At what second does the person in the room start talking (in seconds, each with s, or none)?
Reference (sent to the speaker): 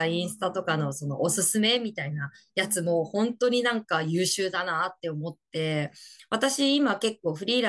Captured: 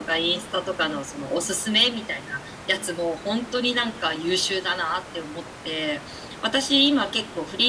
none